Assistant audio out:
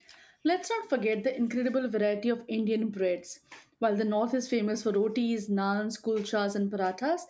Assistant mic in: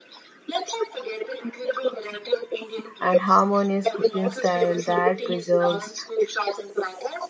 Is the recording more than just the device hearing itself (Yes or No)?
Yes